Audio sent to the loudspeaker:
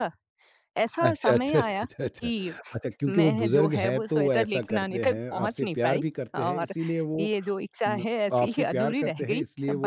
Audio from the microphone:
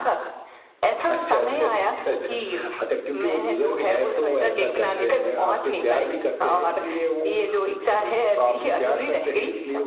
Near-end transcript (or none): none